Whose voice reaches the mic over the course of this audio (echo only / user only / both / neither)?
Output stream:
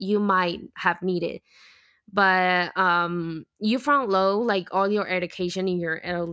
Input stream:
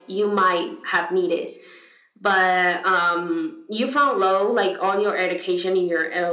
echo only